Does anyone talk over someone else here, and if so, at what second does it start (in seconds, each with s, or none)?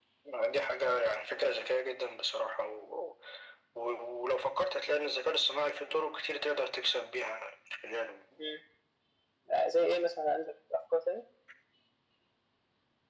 none